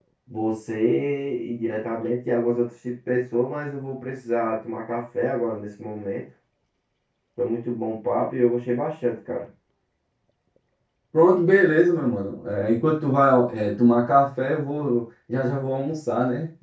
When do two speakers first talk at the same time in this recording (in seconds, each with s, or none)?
none